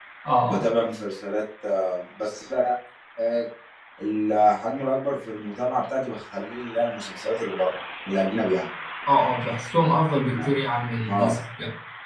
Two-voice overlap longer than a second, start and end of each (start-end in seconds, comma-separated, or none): none